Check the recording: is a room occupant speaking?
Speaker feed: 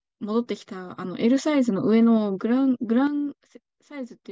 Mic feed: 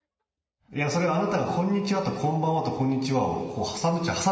Yes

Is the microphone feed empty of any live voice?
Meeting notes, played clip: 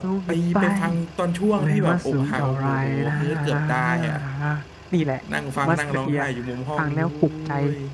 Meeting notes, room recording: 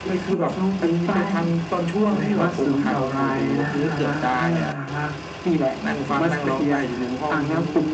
Yes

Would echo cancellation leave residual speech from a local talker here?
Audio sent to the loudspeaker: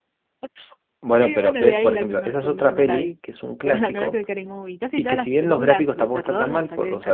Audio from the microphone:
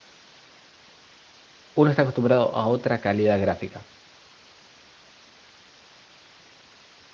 Yes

